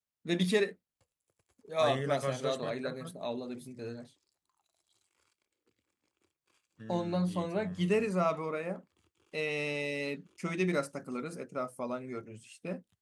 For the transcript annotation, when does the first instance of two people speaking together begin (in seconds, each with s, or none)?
1.8 s